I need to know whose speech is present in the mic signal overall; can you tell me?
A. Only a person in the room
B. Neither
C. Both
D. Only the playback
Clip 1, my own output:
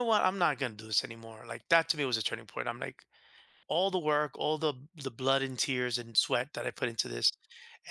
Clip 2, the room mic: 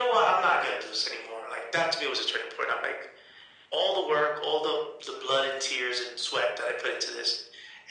D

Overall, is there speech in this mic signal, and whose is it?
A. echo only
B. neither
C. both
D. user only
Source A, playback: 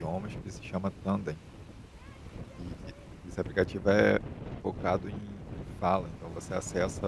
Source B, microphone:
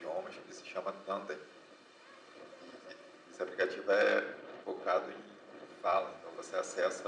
A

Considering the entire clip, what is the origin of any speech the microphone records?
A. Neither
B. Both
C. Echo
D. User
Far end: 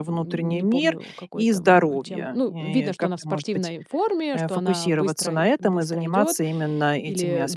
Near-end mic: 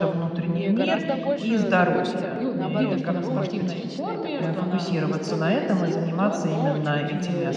B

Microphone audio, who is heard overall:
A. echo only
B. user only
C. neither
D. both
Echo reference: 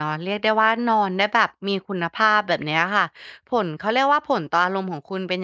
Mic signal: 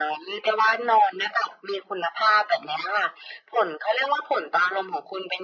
A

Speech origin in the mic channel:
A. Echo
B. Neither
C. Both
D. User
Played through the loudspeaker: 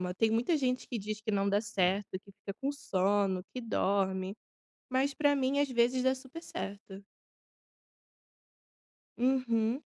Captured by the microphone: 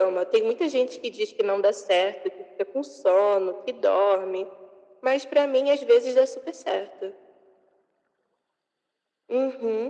A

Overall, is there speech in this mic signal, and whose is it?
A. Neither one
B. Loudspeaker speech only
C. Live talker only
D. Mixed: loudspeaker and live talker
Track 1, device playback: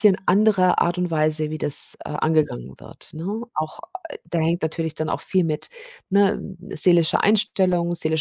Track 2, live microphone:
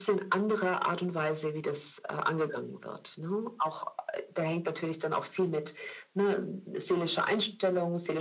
B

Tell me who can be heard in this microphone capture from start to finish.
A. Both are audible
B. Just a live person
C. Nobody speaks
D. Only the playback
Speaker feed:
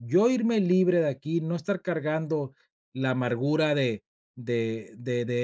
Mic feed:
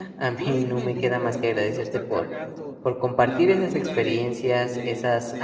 A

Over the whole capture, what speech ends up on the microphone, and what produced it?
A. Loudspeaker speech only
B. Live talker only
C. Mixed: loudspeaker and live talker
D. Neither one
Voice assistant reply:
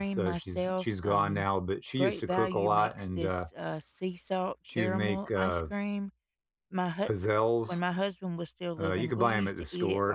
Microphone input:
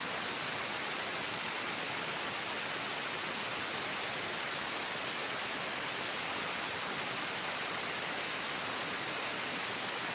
D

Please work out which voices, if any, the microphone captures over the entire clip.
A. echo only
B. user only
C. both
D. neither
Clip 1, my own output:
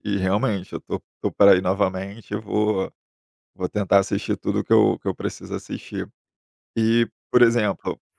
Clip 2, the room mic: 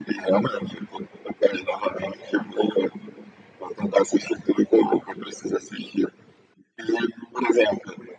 A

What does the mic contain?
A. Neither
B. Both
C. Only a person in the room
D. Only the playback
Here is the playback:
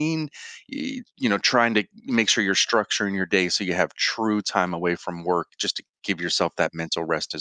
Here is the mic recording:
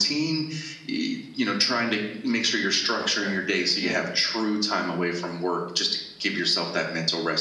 B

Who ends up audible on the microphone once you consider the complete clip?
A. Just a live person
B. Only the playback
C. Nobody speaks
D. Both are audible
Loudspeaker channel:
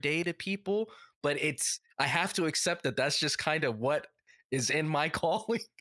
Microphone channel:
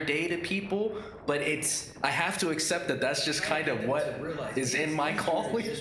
D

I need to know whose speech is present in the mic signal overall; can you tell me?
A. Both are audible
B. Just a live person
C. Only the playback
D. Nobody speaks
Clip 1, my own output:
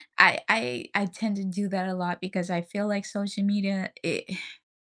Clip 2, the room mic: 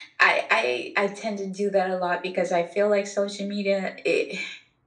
C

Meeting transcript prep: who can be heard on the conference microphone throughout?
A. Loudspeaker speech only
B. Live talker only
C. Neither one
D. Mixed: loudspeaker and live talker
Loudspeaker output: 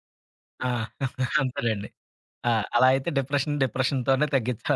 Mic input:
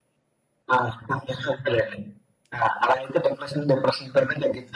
A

